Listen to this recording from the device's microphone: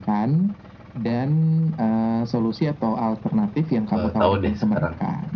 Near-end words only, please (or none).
eee, tahu deh sekarang.